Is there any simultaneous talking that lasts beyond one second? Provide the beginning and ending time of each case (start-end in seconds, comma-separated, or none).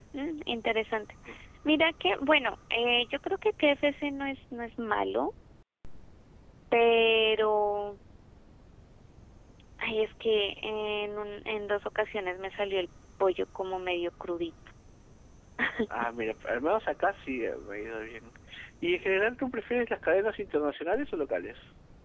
none